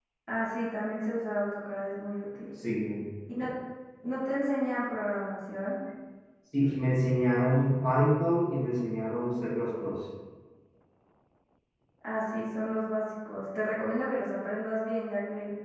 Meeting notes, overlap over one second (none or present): none